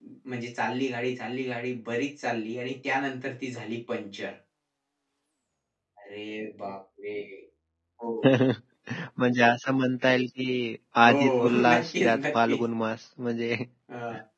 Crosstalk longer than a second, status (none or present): present